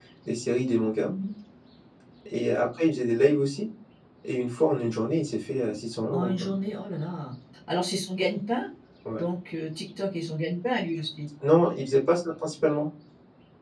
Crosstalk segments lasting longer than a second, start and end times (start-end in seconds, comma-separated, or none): none